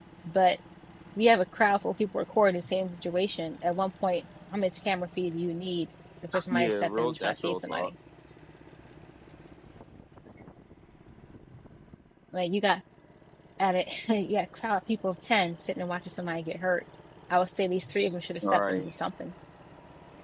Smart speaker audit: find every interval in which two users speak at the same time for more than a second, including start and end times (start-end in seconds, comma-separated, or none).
6.5-7.9